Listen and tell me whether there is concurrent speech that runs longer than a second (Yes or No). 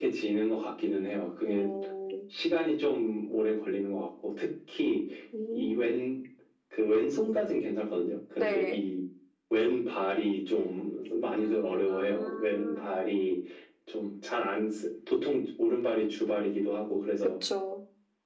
Yes